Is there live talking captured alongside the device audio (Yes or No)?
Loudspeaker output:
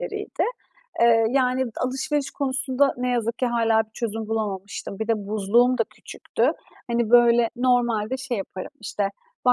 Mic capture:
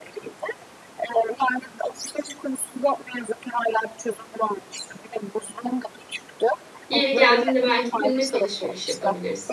Yes